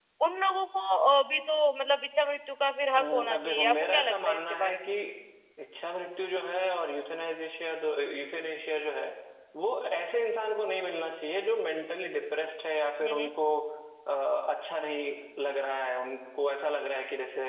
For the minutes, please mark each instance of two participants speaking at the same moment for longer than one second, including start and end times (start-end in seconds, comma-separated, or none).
3.0-4.9